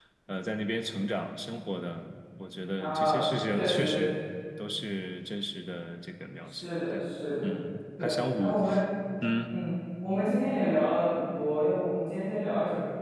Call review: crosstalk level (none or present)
present